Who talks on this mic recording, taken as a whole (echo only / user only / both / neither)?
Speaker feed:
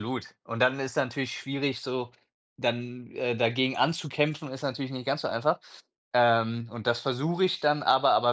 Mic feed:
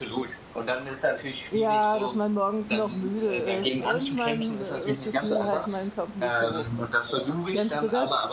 both